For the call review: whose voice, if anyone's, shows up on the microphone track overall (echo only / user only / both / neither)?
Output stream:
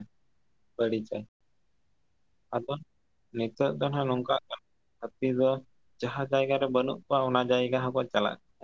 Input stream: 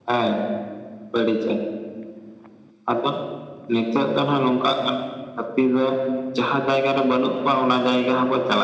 echo only